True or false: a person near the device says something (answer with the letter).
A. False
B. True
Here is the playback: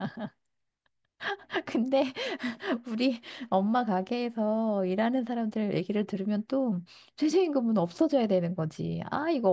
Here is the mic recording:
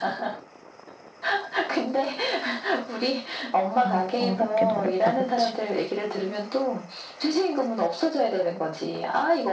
B